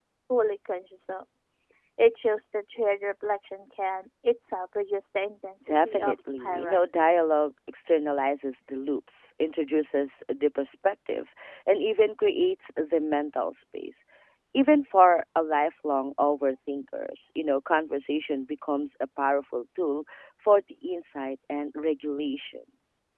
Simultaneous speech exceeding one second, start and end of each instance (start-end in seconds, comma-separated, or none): 5.7-7.1